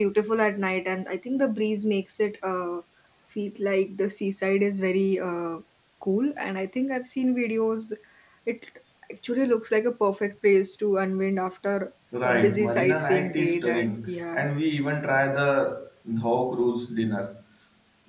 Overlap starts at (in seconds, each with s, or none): 12.1 s